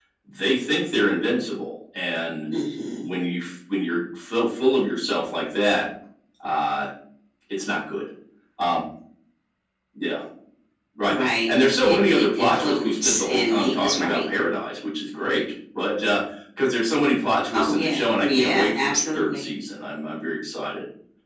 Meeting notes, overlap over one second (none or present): present